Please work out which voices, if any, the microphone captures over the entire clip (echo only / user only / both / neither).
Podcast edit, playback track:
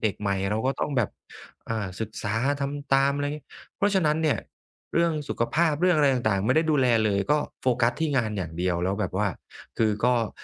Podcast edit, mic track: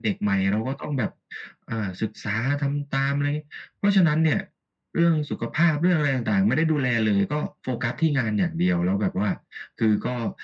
echo only